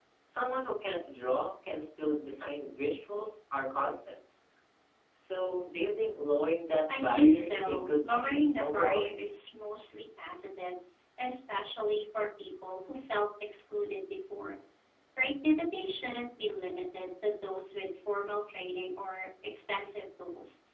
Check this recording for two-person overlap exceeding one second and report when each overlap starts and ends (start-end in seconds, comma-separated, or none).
6.9-9.1